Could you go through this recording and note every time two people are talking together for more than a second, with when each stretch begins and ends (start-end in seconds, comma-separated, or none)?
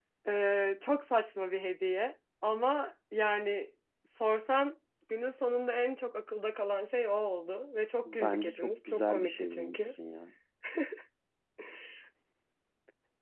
8.0-9.9